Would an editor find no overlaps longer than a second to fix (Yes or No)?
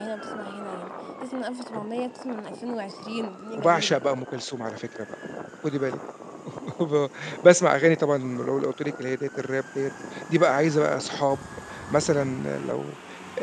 Yes